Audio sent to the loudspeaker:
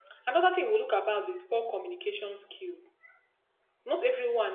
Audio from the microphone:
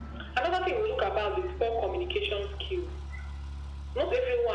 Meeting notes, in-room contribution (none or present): none